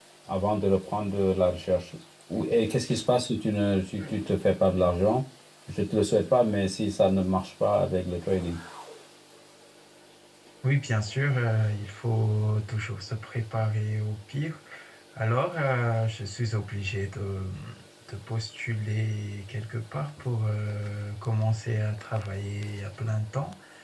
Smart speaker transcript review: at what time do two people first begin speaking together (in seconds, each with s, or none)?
none